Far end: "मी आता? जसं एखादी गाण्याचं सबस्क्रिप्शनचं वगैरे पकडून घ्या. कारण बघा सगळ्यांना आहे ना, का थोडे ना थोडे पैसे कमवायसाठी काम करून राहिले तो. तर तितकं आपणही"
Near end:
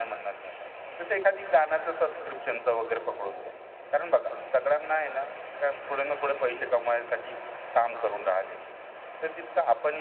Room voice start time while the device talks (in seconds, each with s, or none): none